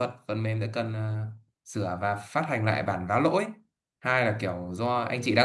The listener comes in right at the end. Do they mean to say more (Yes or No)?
No